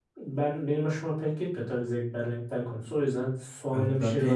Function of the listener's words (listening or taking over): taking over